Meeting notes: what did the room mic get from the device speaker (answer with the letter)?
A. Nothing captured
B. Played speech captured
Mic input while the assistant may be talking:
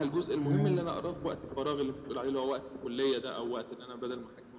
B